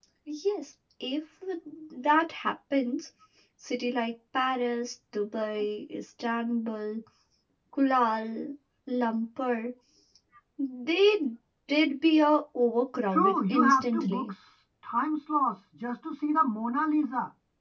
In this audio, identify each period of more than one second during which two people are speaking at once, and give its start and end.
13.1-14.3

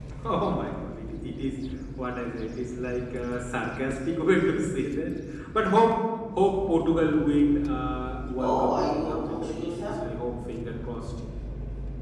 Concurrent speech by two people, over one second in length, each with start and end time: 8.4-10.0

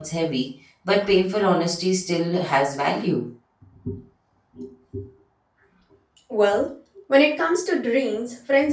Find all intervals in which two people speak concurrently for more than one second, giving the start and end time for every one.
none

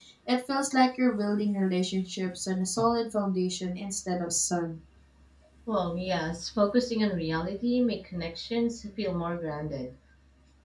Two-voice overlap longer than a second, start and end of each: none

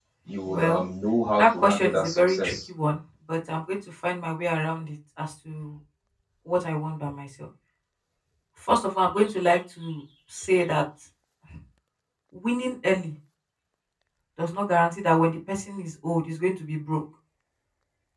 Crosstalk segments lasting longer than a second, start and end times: 1.4-2.6

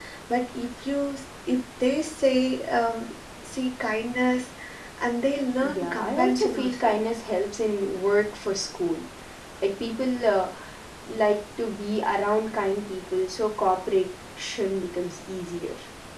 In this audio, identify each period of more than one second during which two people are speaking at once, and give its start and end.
5.6-7.0

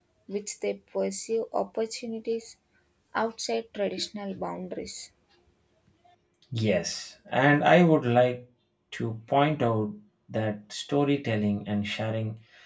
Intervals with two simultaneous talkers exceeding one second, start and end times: none

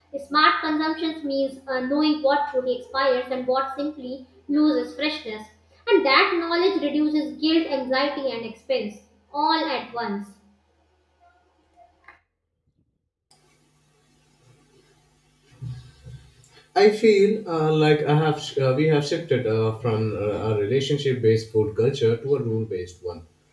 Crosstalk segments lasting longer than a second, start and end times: none

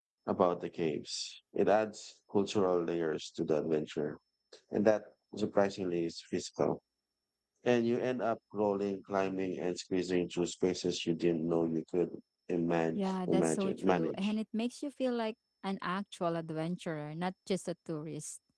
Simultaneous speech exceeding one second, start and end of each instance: 12.9-14.3

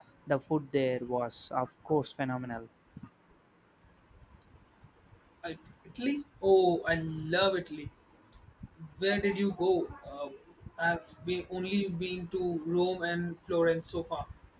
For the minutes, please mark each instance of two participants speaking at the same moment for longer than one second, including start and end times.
none

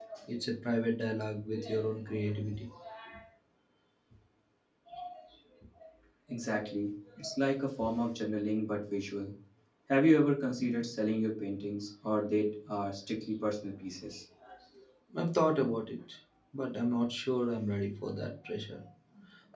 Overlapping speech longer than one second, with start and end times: none

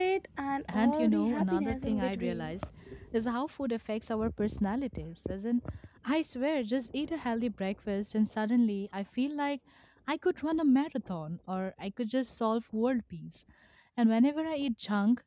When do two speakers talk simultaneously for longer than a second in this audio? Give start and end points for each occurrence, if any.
0.7-2.5

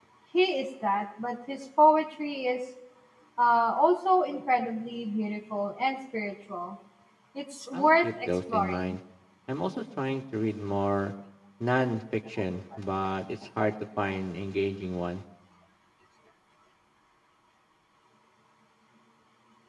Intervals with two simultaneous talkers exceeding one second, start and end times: 7.7-8.9

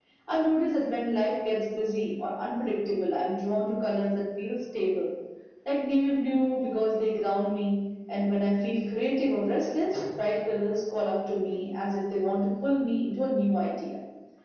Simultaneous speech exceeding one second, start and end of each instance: none

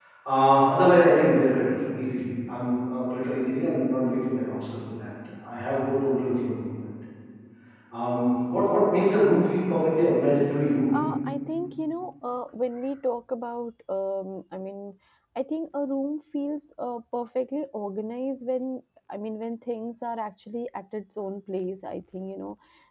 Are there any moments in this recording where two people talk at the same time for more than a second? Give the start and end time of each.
none

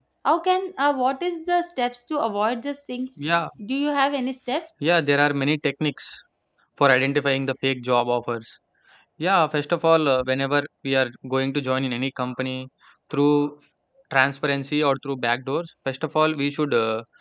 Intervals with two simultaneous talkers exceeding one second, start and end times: none

